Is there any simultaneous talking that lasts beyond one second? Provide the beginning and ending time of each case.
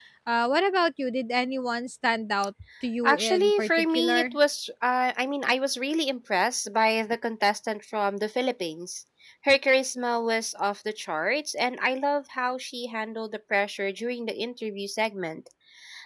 3.0-4.4

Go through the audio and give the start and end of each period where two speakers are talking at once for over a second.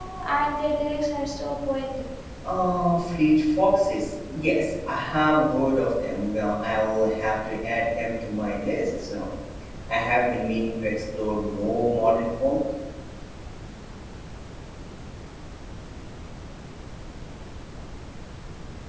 none

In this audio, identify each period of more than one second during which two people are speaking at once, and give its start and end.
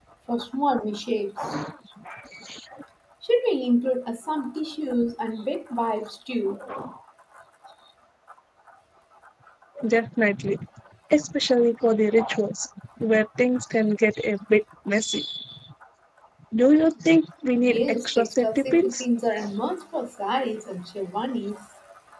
17.7-18.9

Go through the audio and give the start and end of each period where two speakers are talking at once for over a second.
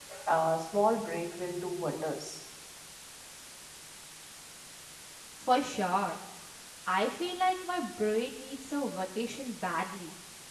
none

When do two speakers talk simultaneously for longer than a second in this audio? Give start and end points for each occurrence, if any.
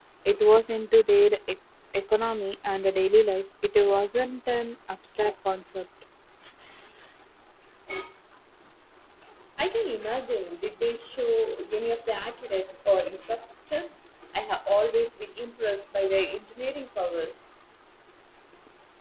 none

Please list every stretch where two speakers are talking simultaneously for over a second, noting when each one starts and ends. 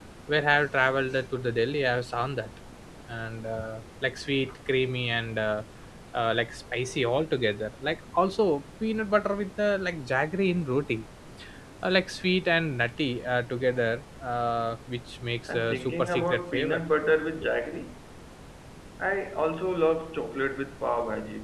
15.5-16.8

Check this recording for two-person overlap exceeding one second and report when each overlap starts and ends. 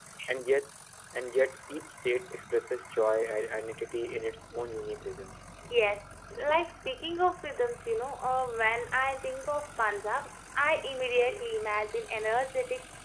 none

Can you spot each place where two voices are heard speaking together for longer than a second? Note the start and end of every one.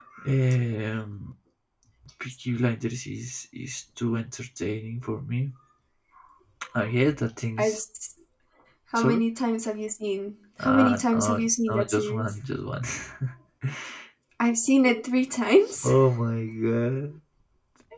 10.6-12.3

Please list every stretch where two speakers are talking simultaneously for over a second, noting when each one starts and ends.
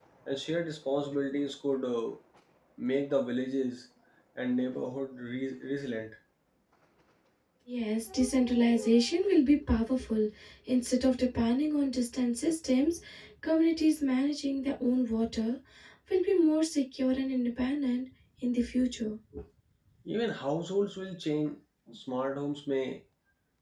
none

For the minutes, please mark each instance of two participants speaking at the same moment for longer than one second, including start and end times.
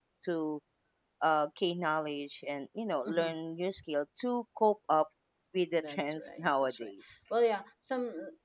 5.8-7.1

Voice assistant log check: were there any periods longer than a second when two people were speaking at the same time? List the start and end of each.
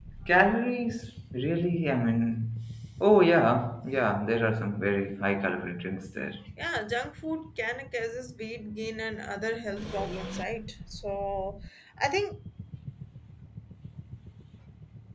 none

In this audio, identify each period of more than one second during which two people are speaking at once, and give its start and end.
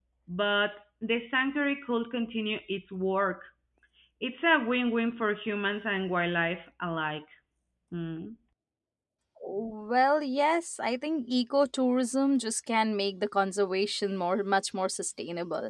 none

